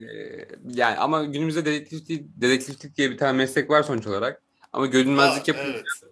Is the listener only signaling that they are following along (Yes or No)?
Yes